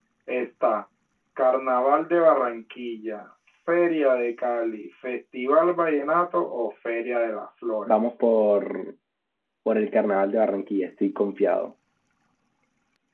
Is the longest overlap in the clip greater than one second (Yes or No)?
No